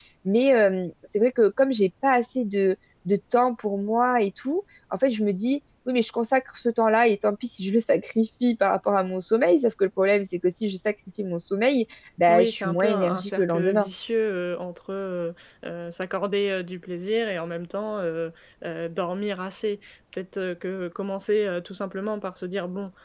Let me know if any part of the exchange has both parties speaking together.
Yes, from 12.3 s

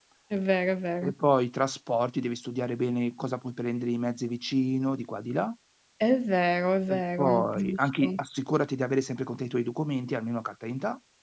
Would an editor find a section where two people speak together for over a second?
Yes, from 6.9 s

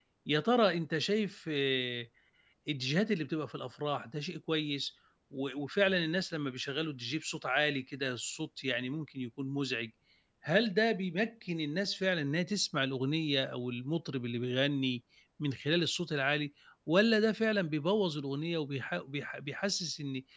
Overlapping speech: No

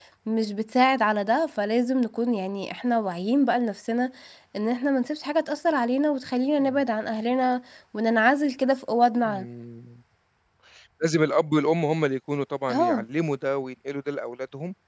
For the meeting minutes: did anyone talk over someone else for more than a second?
No

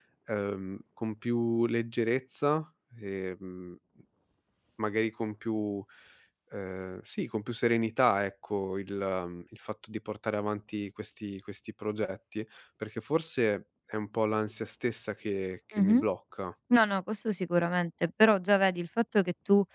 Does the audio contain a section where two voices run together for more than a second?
No

